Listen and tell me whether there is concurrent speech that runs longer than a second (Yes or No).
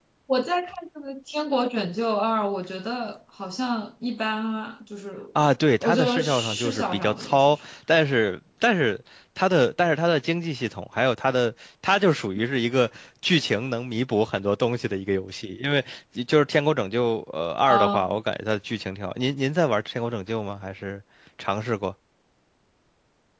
Yes